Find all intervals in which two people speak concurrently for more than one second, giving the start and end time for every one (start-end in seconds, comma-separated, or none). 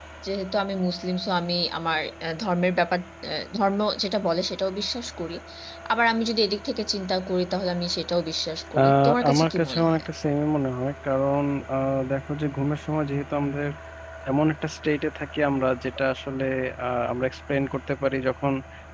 8.8-10.0